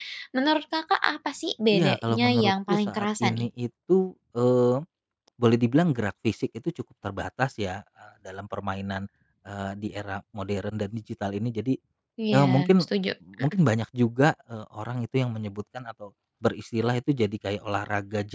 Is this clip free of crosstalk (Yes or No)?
No